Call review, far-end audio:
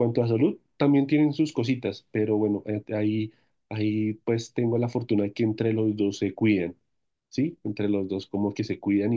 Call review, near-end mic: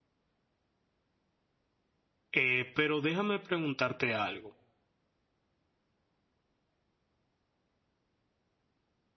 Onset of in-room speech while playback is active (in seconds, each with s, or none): 2.3 s